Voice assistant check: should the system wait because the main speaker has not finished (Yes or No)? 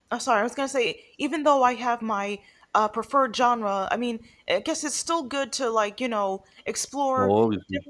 Yes